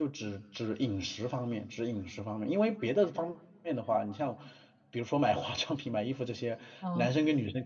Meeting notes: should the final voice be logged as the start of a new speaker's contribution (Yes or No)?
No